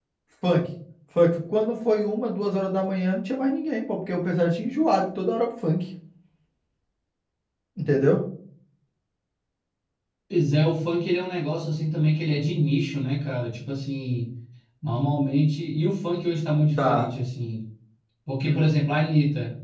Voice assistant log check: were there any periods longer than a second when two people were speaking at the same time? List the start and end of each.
none

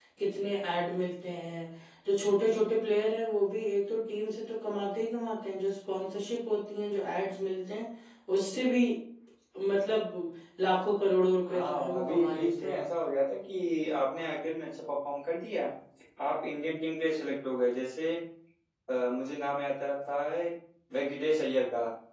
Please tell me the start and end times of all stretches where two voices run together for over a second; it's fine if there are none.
11.5-12.8

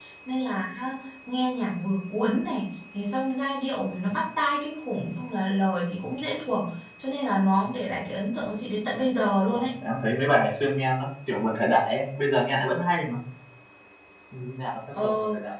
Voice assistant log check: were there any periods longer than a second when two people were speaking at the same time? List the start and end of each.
none

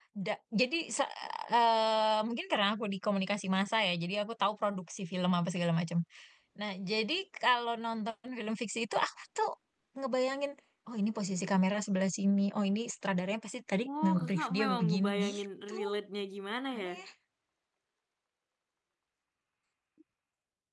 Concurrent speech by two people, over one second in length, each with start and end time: 14.0-15.8

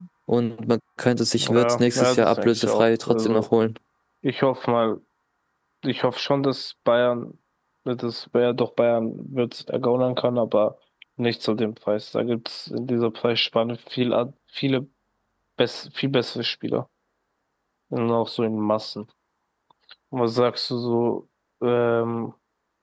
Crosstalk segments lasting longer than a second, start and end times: 1.4-3.5

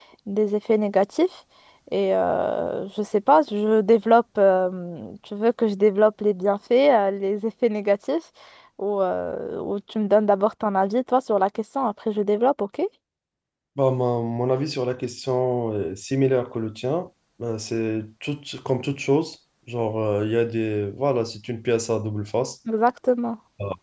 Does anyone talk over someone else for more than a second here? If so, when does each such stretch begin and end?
none

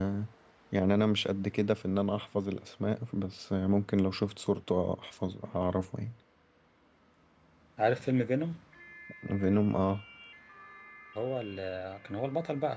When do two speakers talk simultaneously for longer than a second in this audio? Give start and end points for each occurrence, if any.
none

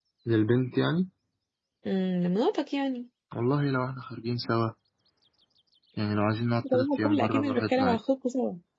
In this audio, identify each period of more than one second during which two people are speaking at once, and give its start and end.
6.7-8.0

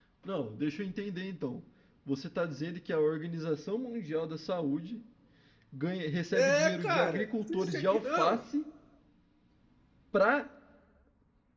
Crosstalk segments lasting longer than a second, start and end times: 6.3-8.4

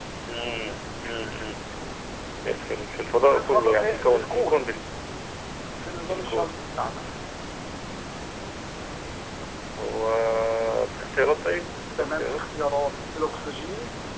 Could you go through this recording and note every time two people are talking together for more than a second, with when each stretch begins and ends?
3.3-4.6

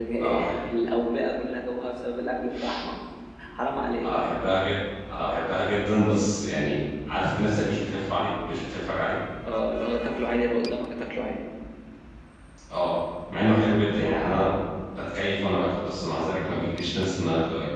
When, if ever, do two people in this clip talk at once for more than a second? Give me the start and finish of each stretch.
none

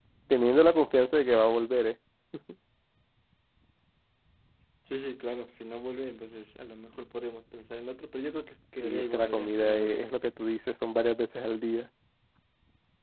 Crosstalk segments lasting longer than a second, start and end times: 8.8-10.1

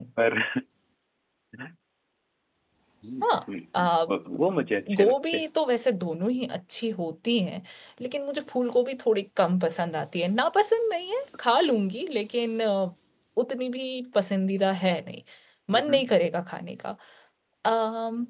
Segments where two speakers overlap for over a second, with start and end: none

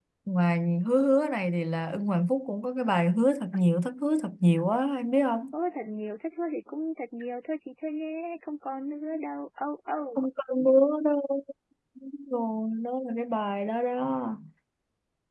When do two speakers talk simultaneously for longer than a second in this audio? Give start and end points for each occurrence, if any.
none

